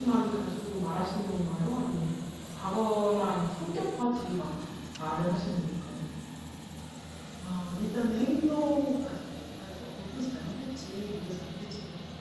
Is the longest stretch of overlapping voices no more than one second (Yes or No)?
Yes